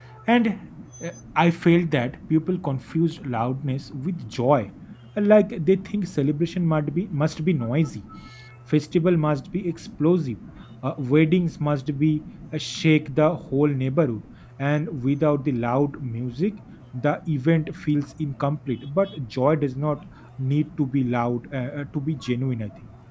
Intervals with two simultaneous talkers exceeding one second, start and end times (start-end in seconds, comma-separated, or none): none